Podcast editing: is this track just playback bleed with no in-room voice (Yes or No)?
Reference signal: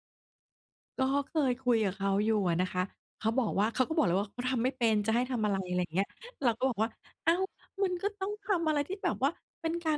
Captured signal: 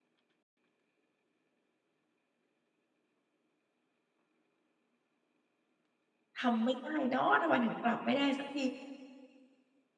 No